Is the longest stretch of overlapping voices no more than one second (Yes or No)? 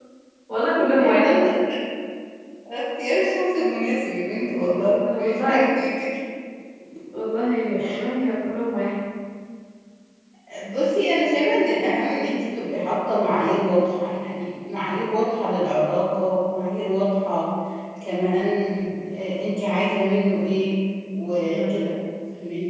No